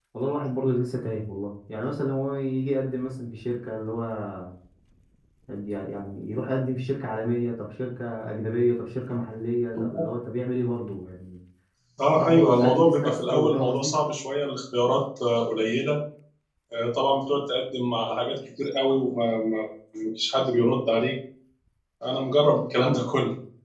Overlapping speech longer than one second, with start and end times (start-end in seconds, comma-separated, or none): 12.2-13.9